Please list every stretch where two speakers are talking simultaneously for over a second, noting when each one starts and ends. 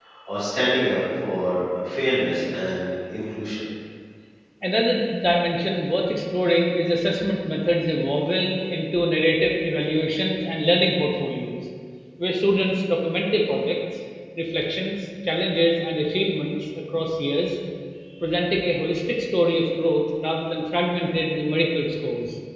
none

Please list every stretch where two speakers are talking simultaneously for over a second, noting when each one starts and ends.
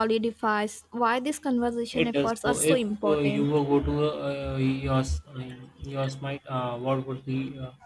1.9-3.5

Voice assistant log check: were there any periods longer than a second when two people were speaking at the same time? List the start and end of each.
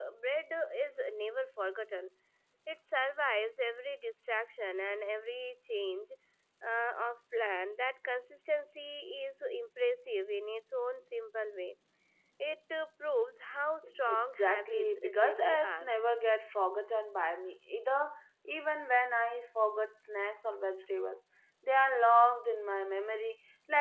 14.1-15.9

